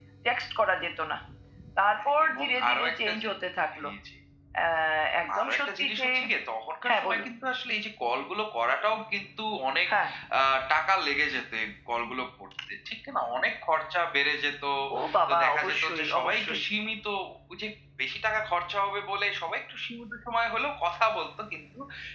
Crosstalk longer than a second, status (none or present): present